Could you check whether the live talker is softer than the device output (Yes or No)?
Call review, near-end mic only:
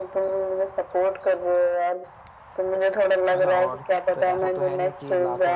Yes